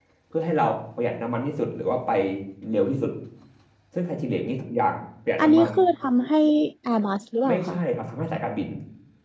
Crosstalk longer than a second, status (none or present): none